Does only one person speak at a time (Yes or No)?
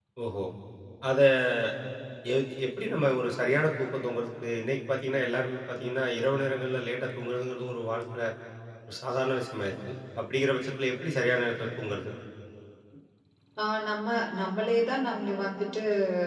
Yes